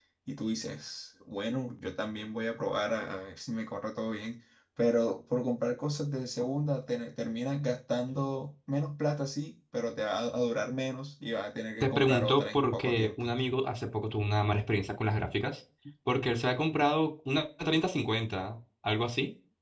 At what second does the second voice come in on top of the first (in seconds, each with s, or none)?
11.8 s